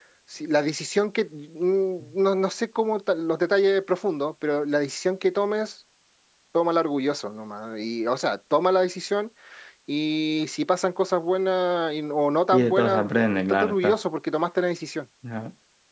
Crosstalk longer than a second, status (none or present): present